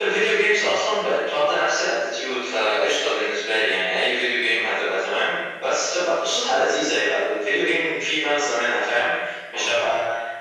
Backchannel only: Yes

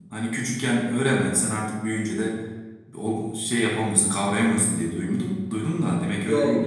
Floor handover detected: Yes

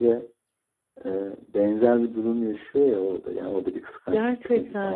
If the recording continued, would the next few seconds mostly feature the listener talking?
Yes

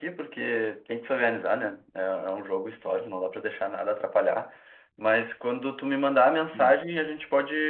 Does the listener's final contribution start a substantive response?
No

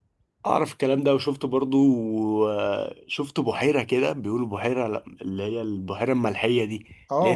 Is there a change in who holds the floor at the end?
Yes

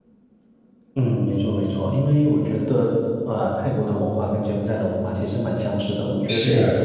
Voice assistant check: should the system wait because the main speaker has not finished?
Yes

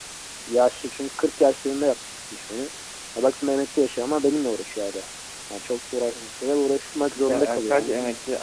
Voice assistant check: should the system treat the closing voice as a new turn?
Yes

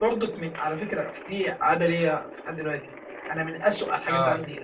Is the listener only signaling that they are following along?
Yes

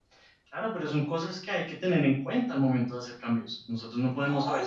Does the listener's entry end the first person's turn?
Yes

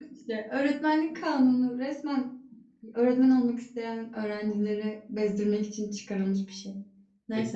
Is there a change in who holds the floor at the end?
Yes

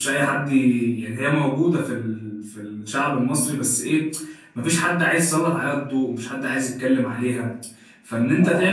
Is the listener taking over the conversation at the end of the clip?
No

